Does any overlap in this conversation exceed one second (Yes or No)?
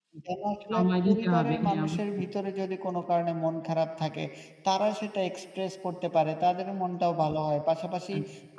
Yes